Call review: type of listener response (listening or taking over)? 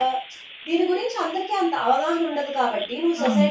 listening